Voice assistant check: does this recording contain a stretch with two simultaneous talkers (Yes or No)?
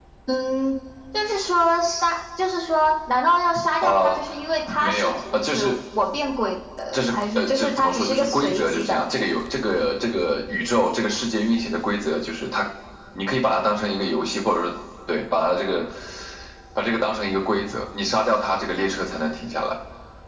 Yes